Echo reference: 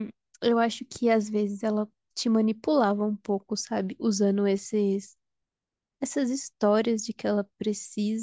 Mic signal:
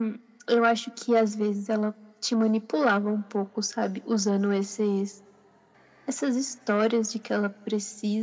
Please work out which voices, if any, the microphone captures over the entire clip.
echo only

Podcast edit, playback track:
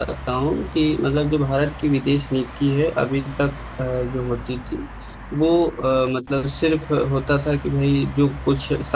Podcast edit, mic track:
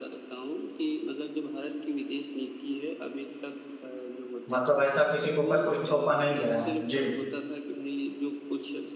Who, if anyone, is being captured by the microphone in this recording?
both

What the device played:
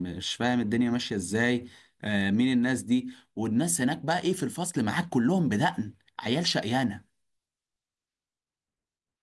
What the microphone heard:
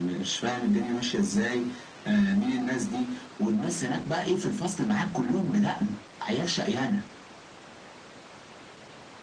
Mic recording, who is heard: echo only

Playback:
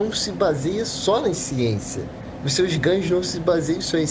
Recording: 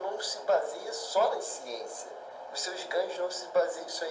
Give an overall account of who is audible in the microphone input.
echo only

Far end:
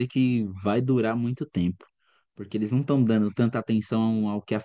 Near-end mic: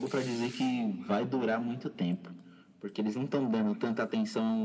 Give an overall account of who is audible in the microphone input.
echo only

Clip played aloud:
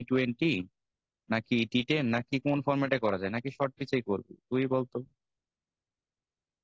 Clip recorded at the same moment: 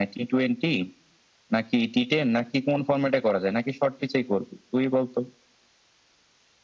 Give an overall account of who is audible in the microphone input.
echo only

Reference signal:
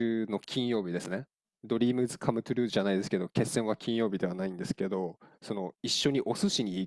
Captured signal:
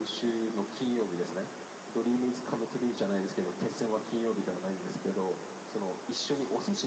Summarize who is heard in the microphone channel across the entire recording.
echo only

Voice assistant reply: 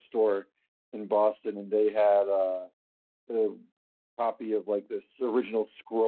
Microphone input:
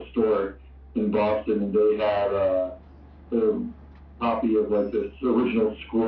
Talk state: echo only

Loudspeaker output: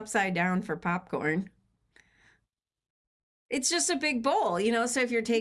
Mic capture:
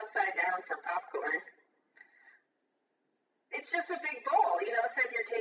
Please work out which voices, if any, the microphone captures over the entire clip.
echo only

